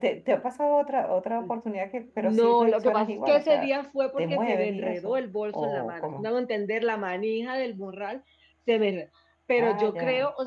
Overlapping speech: Yes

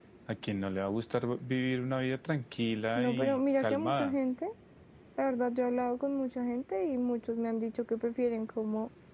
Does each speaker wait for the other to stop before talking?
No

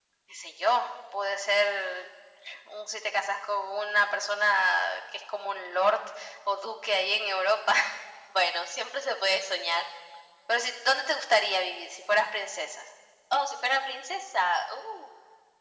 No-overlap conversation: Yes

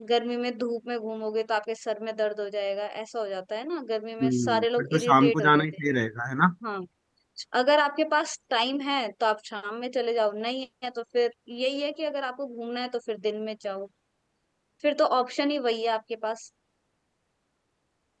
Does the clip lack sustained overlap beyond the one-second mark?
No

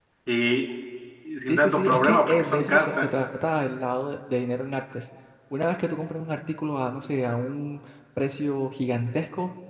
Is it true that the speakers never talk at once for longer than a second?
No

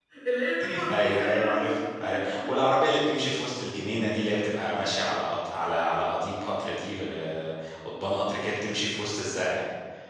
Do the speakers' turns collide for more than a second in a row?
Yes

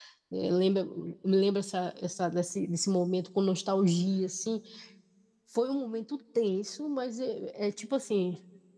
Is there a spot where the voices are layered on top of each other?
No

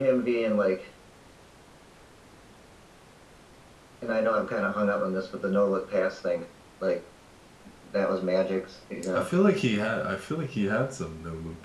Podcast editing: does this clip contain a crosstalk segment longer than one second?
No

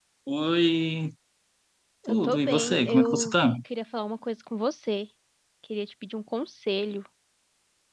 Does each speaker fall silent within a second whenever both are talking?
No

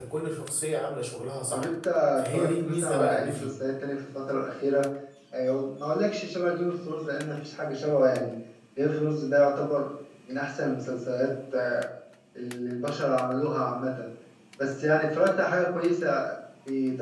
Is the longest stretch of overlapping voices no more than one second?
No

